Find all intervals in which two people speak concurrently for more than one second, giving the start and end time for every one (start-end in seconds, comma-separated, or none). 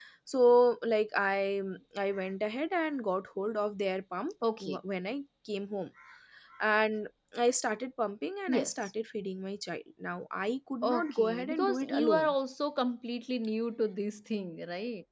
10.8-12.3